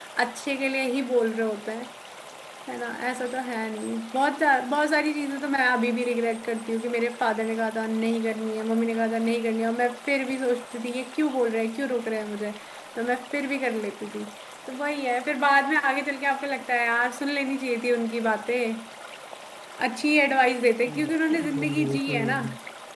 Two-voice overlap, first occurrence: 20.9 s

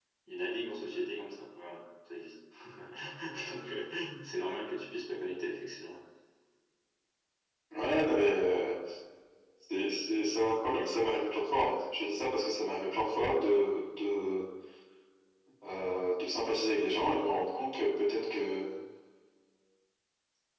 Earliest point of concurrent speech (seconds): none

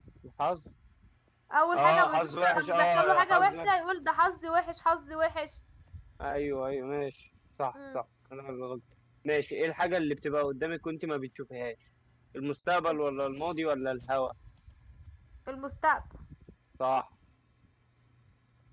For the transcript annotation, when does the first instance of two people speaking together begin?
1.8 s

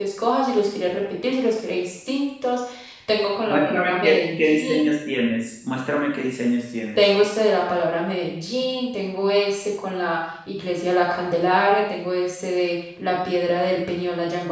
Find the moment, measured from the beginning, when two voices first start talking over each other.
3.5 s

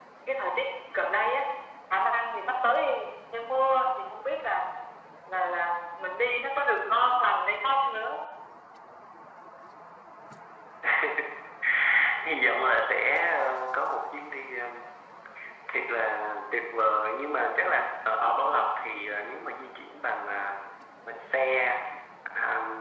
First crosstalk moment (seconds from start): none

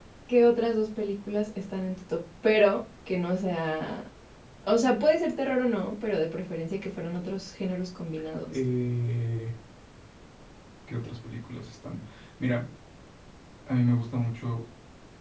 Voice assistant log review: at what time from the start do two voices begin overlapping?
none

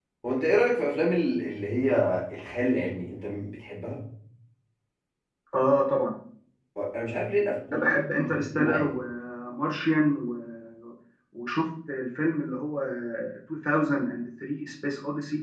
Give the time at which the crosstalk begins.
7.7 s

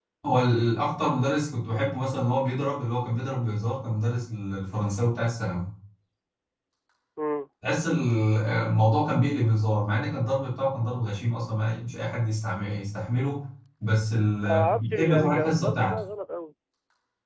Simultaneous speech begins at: 14.5 s

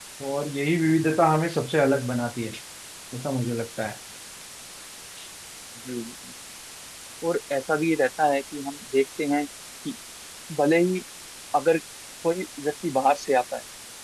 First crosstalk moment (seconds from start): none

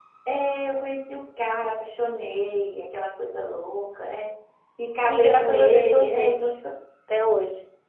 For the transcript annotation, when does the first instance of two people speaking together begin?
5.1 s

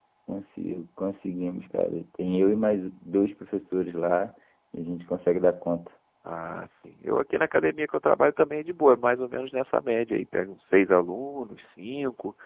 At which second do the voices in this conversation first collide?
none

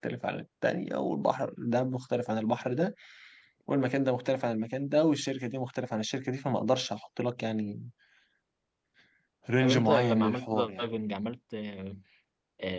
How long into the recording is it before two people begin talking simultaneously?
9.6 s

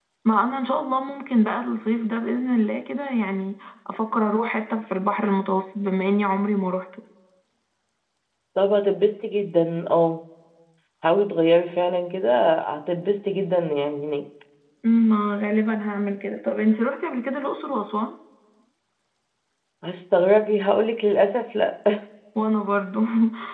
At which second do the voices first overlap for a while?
none

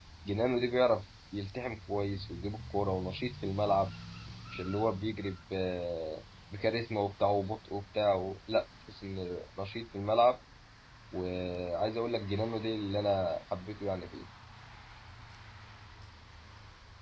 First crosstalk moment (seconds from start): none

